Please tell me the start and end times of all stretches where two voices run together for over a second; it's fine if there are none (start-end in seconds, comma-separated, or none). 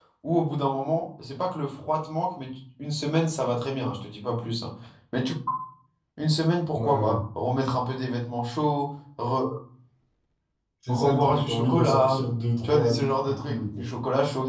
10.9-12.2, 12.6-13.8